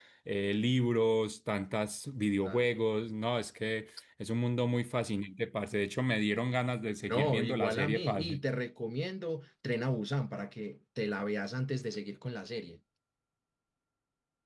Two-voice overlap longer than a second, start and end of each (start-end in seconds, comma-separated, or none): 7.1-8.4